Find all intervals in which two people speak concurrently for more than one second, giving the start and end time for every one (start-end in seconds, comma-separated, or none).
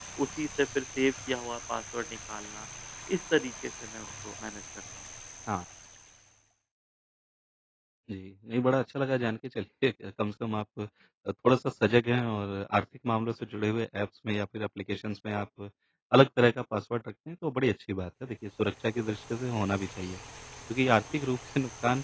none